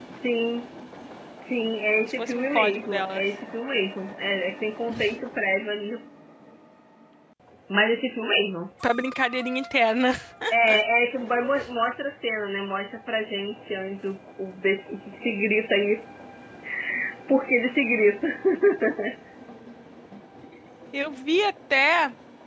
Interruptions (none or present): present